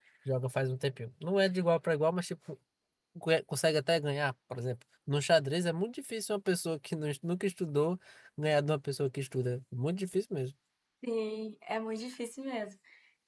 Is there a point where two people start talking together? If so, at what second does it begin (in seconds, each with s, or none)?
none